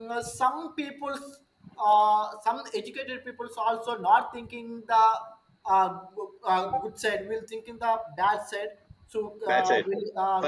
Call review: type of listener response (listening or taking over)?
taking over